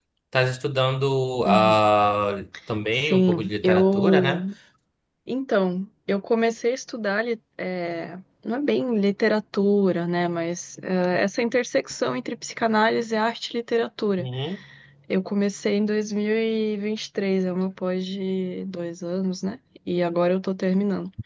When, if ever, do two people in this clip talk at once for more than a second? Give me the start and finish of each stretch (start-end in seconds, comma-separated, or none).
2.9-4.4